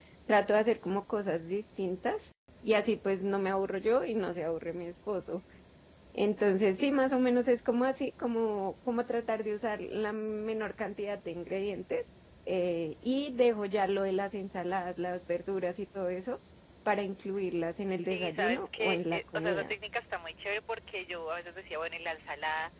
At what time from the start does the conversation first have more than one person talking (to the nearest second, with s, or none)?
18 s